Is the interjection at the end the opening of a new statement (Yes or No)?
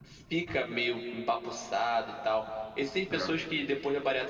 No